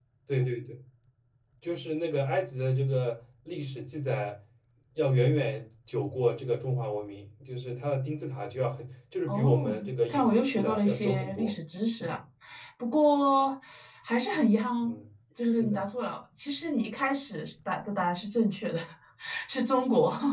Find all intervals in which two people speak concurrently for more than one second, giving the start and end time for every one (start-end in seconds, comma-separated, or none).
9.3-11.5